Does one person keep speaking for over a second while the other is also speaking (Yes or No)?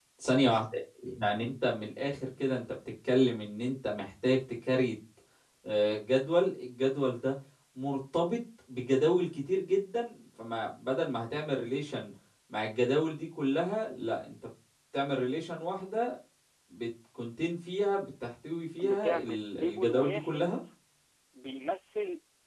Yes